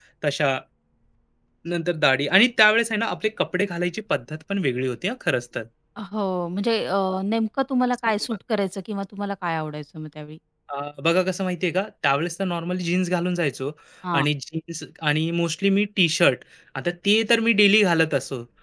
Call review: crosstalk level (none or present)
none